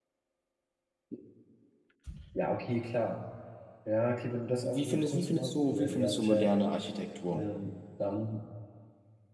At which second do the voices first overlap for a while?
4.6 s

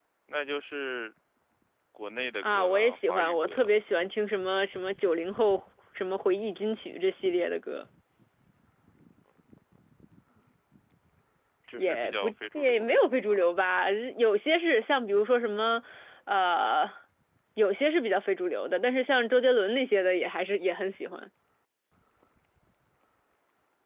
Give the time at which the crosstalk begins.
2.5 s

